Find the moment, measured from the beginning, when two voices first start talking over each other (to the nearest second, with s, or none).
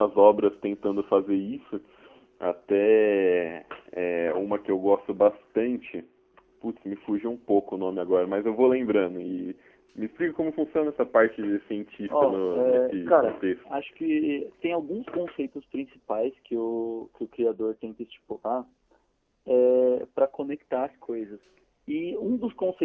12 s